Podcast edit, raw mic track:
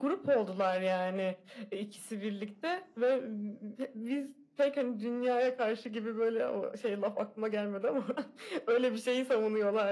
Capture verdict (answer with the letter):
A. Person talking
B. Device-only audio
B